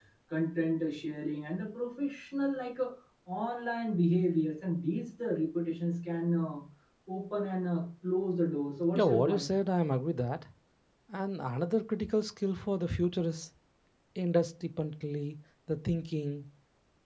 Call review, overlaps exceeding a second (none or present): none